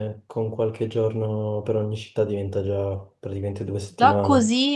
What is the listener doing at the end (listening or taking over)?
taking over